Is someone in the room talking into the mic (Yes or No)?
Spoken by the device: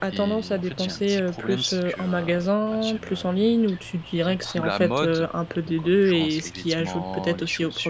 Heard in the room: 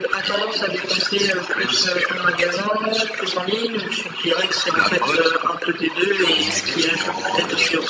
Yes